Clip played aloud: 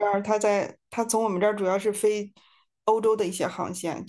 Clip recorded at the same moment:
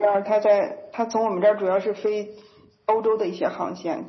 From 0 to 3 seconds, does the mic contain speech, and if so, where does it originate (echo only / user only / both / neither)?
echo only